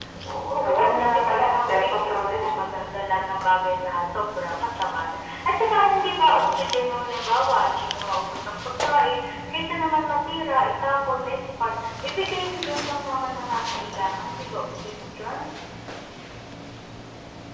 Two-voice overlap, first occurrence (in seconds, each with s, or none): 0.5 s